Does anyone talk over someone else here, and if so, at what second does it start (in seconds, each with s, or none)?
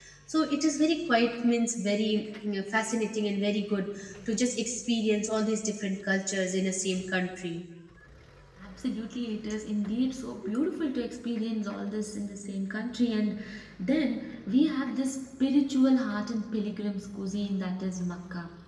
none